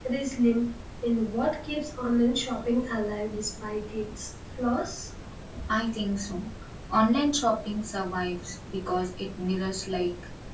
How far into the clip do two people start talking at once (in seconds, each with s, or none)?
none